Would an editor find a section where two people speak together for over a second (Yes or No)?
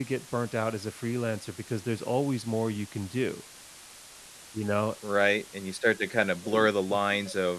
No